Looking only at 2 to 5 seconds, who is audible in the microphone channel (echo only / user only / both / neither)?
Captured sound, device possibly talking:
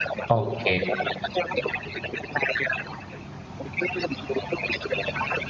echo only